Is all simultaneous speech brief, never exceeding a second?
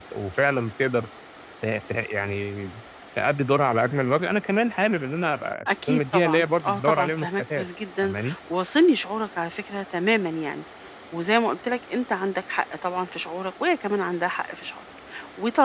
No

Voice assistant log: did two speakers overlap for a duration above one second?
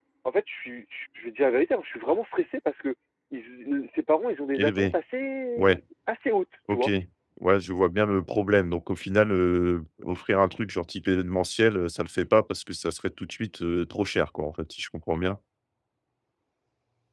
No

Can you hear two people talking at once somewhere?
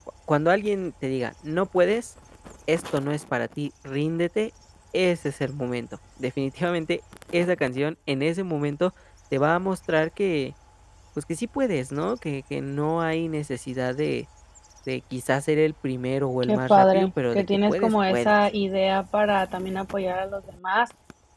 Yes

